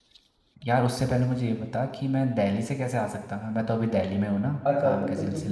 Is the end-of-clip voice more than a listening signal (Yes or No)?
Yes